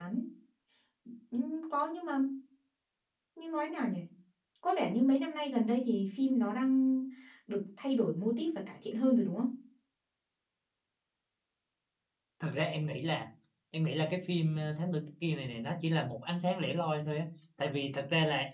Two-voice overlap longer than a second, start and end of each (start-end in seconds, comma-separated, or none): none